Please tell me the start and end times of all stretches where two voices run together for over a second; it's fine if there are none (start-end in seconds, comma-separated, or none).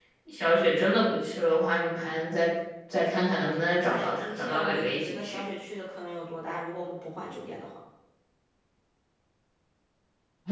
3.9-5.4